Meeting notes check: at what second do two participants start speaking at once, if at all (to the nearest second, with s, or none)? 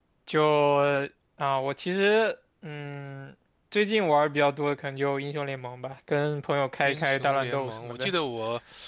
7 s